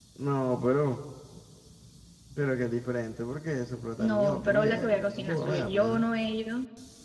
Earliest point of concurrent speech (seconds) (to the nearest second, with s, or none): 4 s